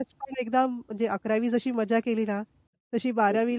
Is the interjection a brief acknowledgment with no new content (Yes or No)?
Yes